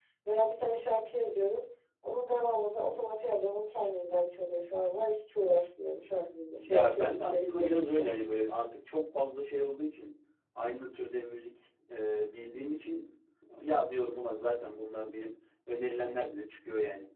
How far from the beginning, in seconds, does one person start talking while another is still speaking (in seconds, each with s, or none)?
6.7 s